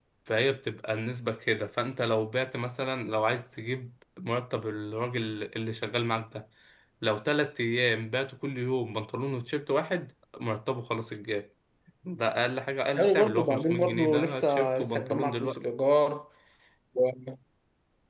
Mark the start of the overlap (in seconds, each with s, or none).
12.9 s